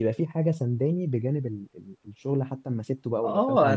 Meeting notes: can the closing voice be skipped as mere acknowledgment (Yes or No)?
No